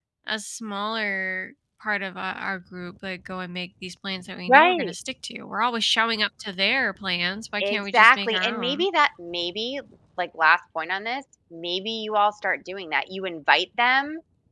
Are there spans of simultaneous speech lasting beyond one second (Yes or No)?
Yes